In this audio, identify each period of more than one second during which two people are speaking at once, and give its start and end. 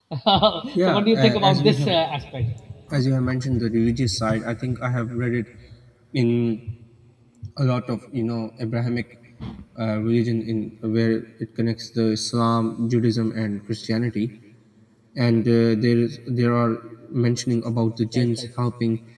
0.8-2.0

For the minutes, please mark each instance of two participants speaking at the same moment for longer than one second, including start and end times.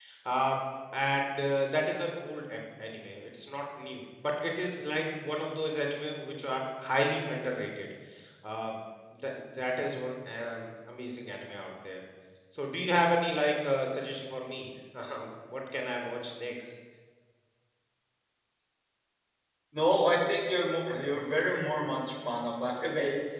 none

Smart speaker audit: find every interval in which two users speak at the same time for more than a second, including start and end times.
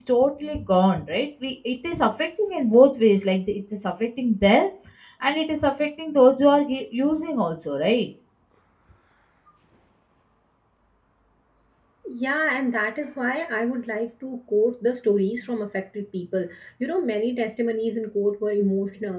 none

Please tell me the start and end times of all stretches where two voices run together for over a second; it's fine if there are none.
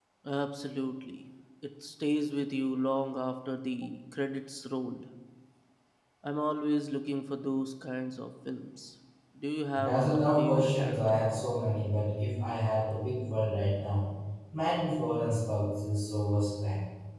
9.7-11.2

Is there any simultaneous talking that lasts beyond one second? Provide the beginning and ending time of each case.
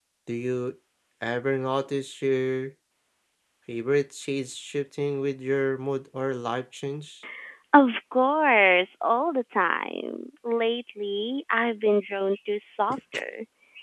none

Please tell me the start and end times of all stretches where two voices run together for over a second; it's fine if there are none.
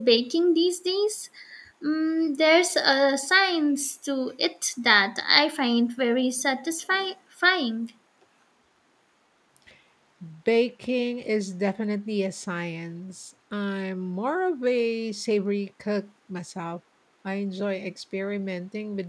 none

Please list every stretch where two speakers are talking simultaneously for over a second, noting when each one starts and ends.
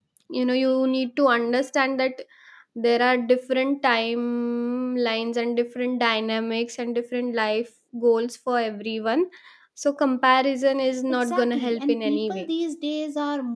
11.1-12.5

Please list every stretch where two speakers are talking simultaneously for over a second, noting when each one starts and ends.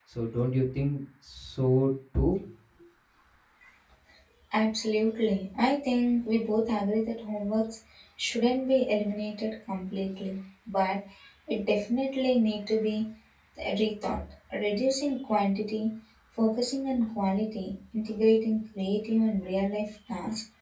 none

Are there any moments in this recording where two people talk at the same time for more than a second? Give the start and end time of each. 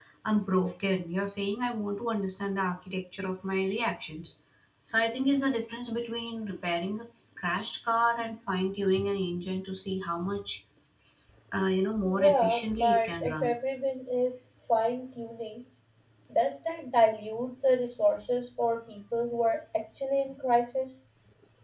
12.0-13.5

